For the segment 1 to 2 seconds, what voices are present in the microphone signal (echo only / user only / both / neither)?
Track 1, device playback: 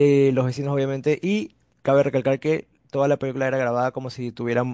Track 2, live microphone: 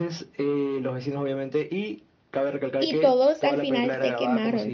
echo only